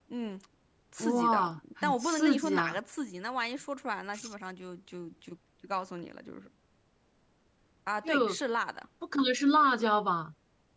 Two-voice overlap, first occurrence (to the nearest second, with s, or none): 1 s